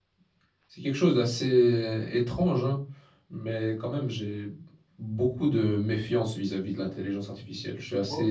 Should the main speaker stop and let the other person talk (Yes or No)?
No